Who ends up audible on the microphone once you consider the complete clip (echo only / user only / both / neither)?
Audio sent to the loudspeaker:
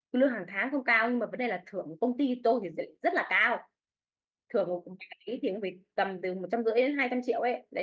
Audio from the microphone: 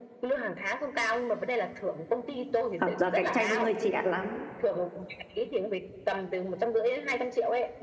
both